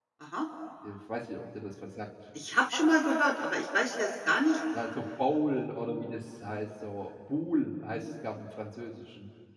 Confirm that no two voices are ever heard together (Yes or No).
Yes